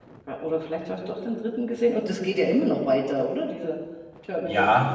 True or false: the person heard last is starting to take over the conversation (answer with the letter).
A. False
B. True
B